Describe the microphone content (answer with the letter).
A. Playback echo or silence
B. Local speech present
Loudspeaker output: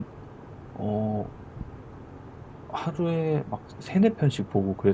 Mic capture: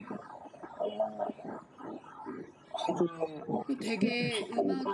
B